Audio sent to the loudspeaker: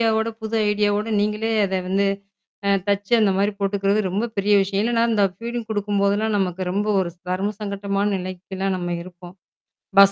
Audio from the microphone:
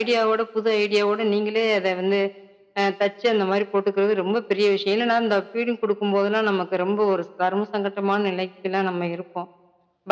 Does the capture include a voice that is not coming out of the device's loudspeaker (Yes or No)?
No